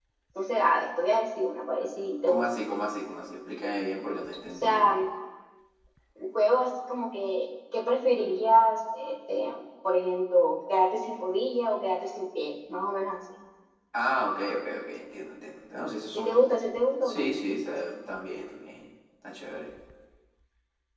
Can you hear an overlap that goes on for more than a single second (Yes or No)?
No